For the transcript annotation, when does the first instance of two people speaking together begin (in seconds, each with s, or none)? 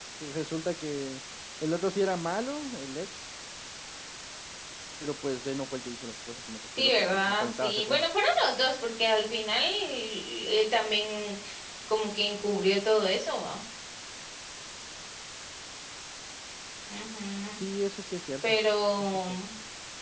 6.8 s